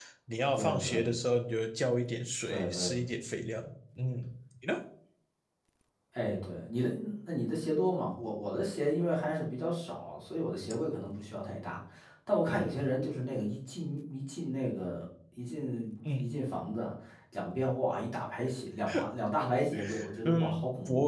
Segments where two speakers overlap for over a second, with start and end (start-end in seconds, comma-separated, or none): none